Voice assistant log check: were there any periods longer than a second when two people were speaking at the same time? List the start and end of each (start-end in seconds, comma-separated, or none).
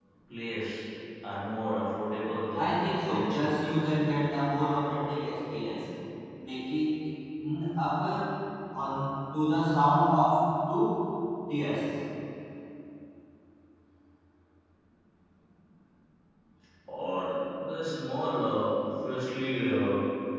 2.5-3.8